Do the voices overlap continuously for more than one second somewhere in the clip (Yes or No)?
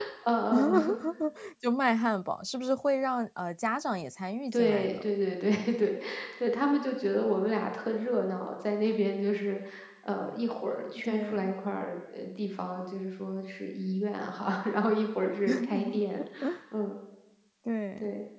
No